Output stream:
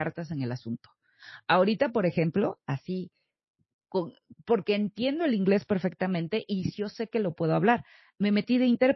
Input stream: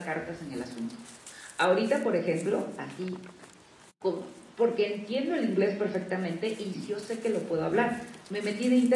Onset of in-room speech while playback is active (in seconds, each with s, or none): none